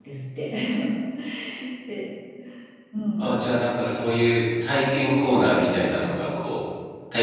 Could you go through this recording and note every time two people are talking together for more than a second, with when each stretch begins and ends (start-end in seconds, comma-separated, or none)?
4.8-6.4